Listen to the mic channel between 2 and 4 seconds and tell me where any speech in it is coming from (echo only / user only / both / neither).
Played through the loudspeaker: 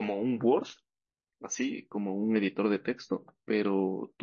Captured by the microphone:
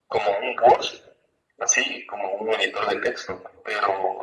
echo only